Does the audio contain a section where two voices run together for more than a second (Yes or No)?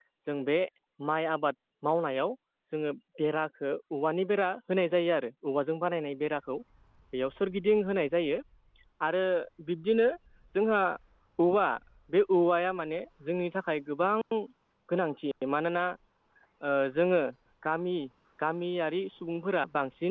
No